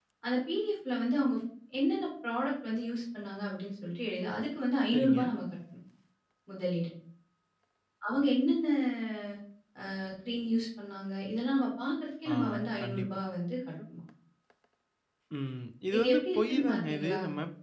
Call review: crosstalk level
present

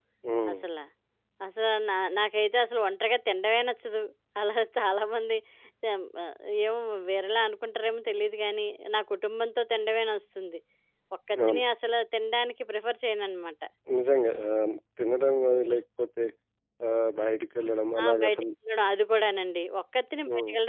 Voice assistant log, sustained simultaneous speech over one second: none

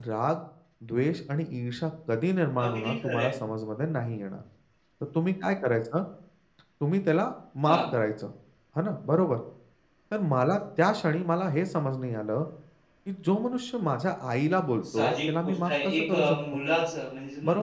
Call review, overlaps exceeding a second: present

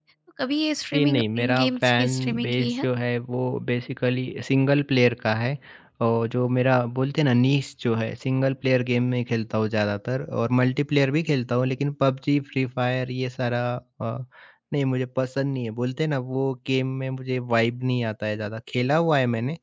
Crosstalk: present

